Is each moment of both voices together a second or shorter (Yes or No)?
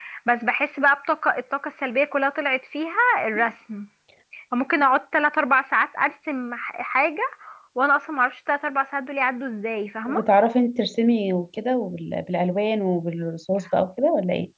Yes